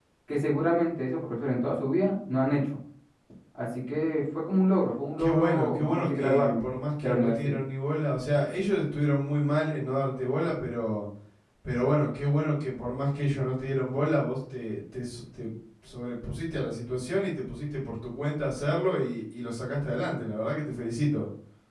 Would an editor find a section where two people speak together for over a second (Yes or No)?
Yes